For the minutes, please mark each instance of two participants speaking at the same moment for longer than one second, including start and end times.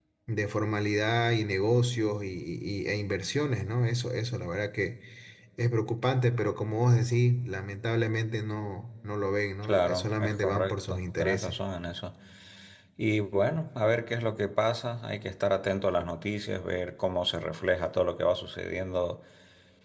9.6-11.6

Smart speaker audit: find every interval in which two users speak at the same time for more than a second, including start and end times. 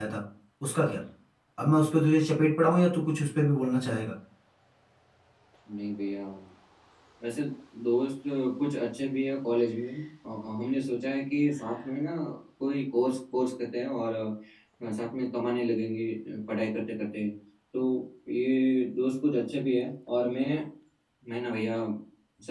none

